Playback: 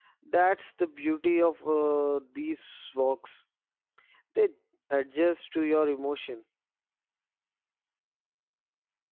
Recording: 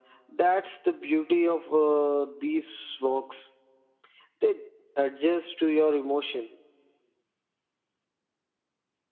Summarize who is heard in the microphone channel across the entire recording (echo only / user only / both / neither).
echo only